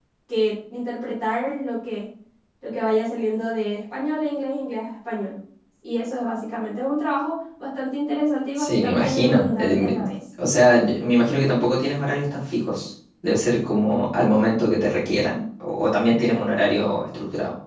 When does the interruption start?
8.6 s

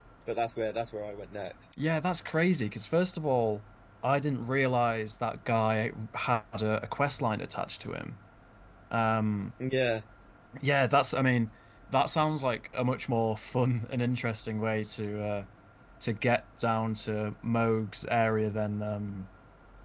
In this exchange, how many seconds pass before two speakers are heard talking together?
none

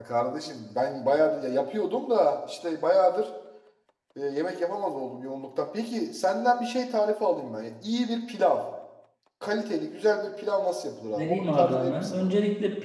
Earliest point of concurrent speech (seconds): 11.2 s

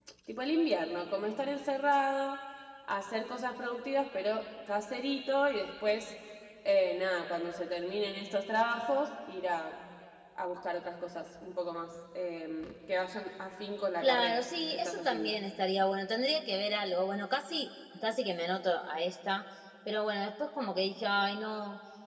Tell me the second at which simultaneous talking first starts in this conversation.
14.0 s

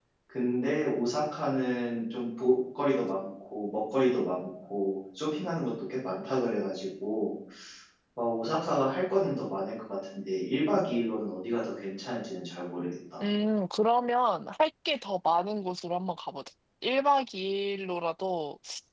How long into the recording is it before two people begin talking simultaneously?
none

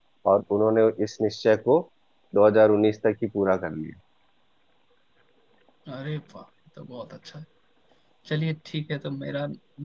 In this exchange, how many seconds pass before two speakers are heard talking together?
none

